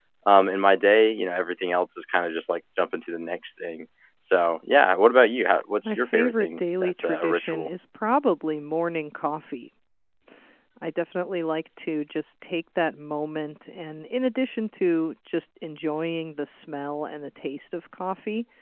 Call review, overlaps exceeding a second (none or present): present